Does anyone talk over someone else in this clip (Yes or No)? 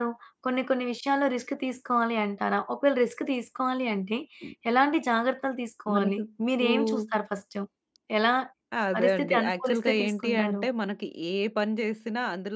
Yes